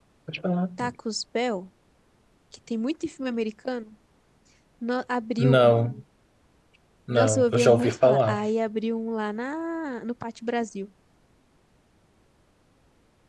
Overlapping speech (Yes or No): Yes